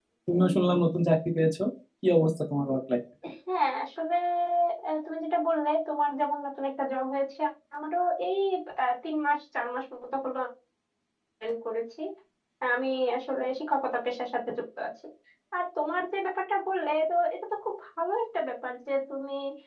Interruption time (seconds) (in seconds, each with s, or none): none